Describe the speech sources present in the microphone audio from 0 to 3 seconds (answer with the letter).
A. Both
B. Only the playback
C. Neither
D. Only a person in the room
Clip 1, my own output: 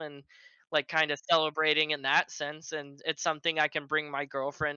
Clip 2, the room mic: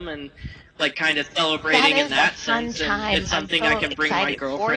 A